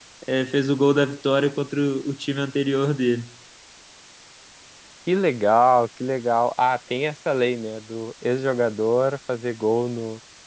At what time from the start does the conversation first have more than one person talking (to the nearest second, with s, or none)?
none